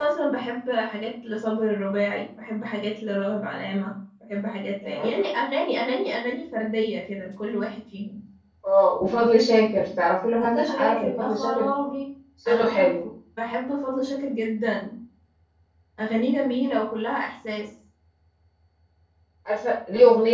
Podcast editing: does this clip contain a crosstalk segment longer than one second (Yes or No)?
Yes